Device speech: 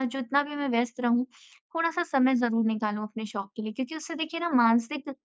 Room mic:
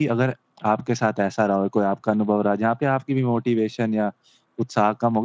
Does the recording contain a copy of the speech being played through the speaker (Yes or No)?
No